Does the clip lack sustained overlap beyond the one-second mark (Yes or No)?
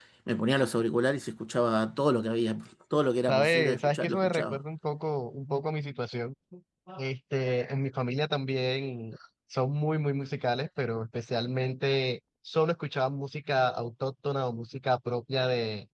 No